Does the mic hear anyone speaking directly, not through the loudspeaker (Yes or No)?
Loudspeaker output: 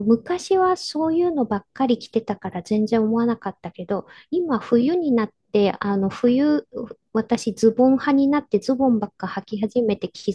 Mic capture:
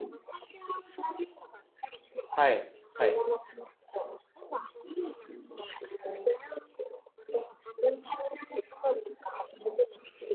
Yes